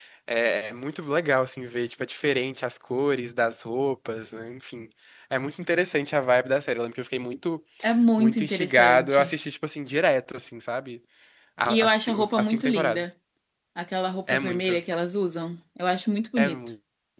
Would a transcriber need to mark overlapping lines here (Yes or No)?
Yes